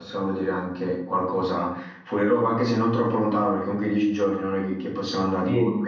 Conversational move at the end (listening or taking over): taking over